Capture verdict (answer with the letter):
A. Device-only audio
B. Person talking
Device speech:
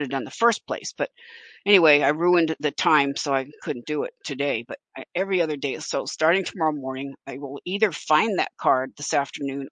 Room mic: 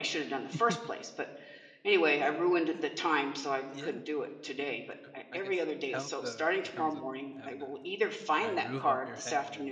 B